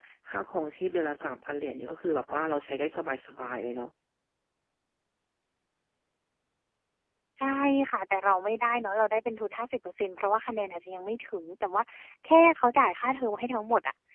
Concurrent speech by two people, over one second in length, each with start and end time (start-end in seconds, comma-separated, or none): none